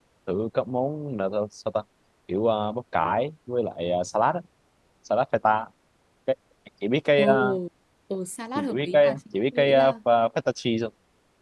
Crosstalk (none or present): present